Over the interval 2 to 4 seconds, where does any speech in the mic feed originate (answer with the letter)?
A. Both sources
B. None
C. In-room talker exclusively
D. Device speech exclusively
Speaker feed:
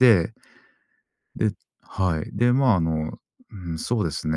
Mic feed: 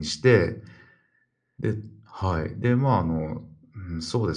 D